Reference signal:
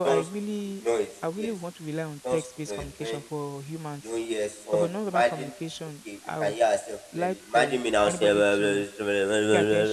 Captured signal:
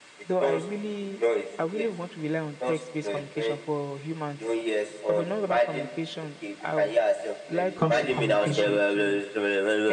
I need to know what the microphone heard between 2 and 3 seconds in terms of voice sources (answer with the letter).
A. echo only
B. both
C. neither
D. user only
A